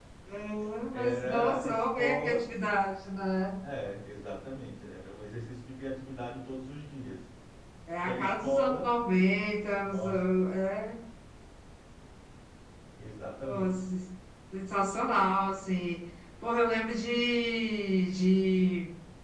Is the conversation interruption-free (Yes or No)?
No